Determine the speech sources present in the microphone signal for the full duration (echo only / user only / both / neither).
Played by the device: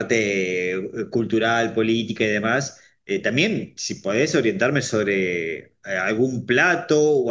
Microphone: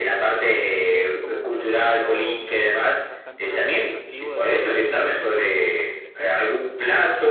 both